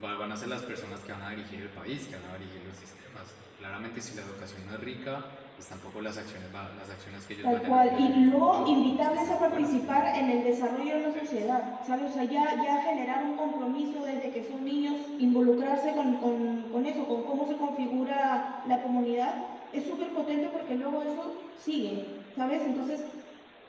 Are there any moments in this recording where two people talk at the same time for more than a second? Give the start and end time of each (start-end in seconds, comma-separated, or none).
7.4-10.1